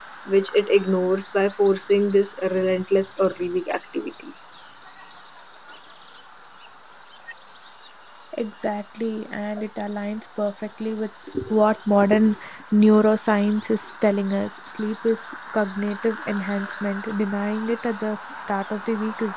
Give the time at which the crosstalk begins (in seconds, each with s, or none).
none